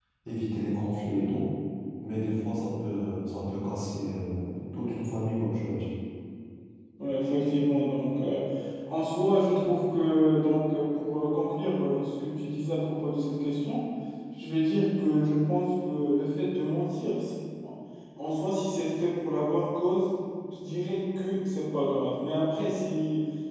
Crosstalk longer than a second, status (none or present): none